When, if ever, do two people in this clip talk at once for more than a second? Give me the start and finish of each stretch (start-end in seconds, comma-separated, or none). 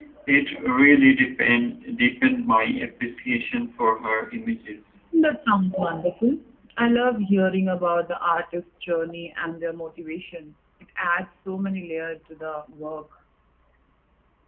none